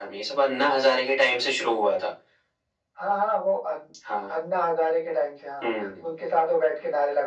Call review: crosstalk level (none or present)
none